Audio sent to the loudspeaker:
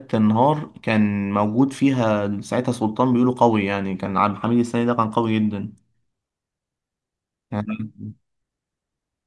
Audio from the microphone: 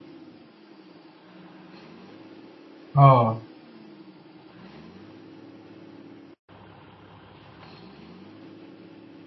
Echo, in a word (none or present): none